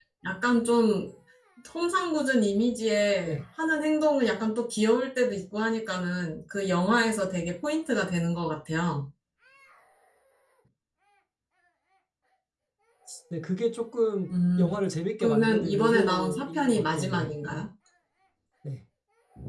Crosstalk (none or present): present